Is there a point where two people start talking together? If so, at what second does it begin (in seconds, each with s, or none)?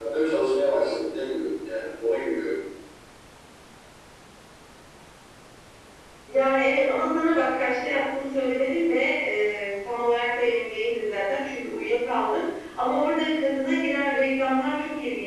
none